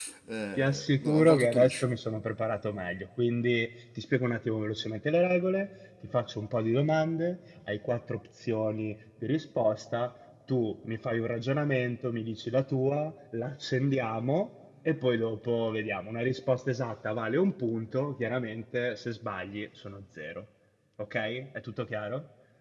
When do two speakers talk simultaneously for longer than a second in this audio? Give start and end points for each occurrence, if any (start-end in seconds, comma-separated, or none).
0.6-1.9